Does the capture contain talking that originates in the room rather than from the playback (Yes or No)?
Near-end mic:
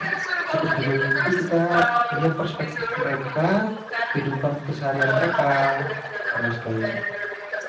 Yes